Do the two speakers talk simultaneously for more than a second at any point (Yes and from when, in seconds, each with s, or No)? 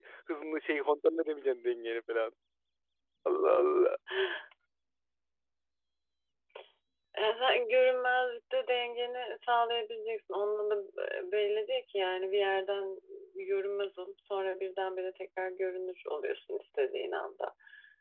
No